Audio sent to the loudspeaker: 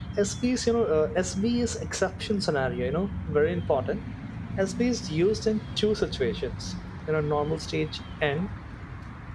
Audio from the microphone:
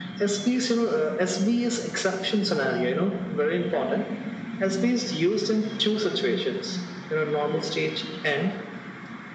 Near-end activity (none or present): none